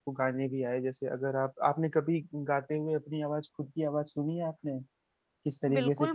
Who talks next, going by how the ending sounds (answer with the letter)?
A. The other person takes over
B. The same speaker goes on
A